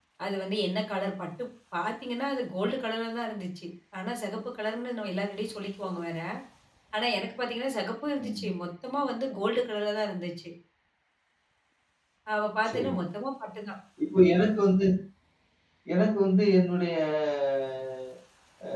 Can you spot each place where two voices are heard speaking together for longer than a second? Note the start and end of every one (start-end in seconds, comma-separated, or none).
none